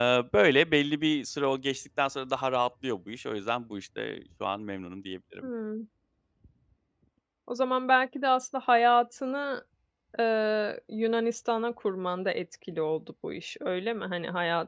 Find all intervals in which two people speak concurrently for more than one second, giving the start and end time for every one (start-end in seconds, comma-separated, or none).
none